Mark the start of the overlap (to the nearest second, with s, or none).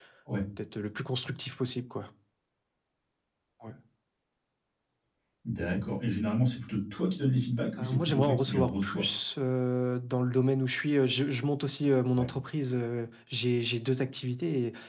8 s